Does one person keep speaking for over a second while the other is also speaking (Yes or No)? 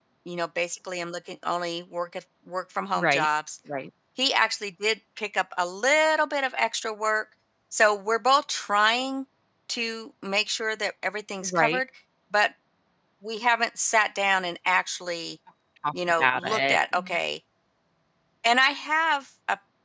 Yes